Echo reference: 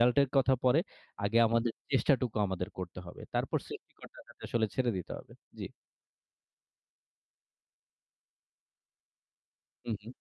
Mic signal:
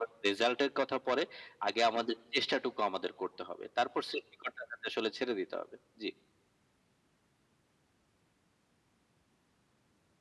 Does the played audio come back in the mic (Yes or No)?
Yes